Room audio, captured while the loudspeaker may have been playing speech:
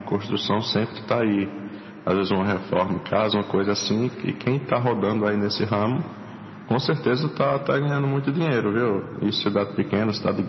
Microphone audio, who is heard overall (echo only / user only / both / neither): echo only